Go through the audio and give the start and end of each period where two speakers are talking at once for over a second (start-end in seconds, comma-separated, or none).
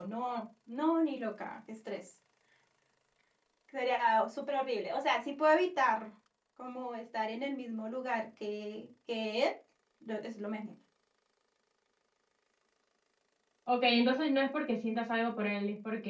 none